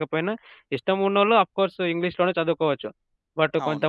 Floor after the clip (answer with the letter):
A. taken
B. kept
B